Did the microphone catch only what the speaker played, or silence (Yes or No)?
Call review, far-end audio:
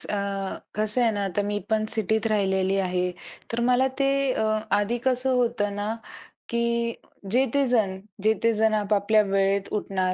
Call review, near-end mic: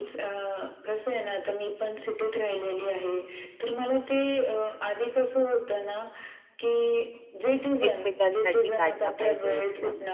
No